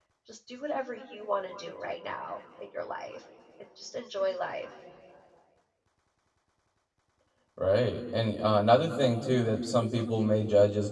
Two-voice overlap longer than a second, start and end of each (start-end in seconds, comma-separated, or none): none